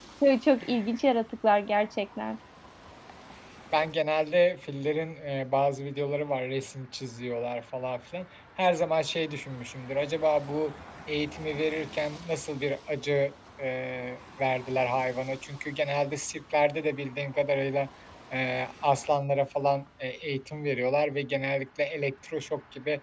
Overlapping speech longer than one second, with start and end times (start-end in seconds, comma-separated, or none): none